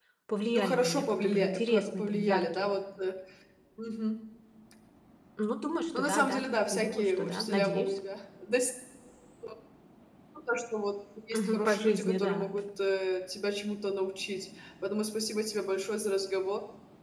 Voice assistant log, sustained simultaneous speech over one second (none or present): present